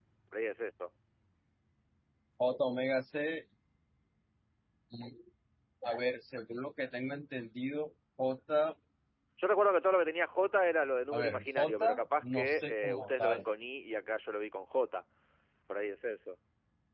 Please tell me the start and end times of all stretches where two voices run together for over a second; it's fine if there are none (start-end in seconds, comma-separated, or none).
11.1-13.4